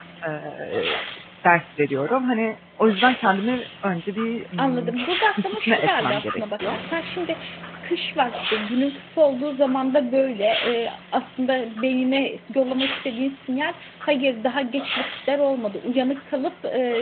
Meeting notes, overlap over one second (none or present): present